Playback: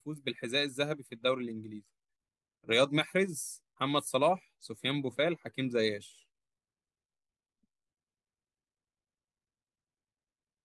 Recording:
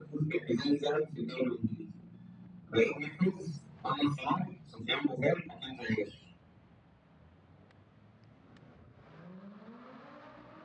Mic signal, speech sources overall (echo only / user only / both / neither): echo only